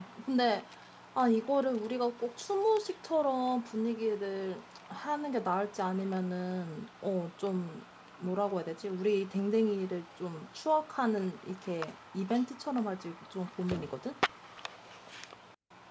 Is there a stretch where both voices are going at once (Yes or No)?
No